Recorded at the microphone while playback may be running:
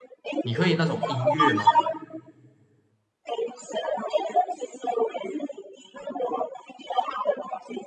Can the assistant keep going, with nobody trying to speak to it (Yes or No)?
No